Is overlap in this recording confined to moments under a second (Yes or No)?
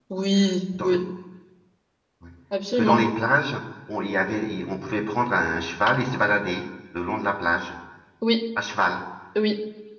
Yes